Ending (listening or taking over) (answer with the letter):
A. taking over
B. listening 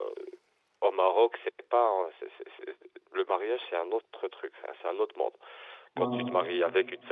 B